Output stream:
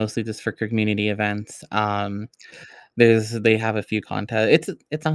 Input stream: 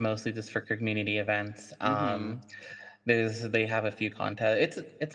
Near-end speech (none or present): present